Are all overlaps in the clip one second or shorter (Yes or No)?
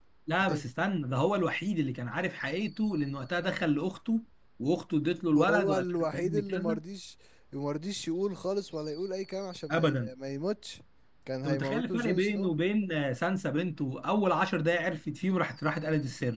No